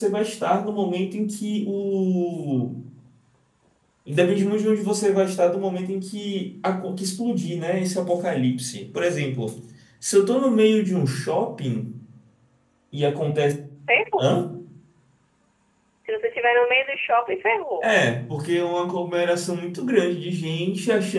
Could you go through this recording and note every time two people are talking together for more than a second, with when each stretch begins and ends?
none

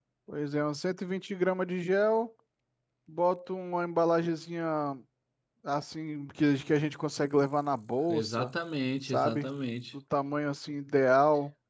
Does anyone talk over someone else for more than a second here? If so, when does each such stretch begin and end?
none

